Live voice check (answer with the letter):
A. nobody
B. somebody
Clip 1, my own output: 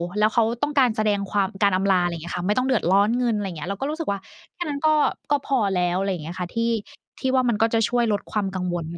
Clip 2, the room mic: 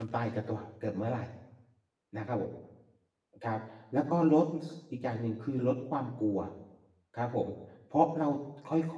B